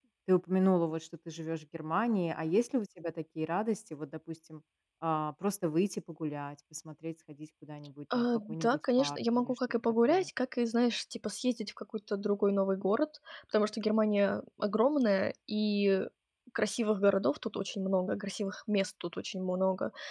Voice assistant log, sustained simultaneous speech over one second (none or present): present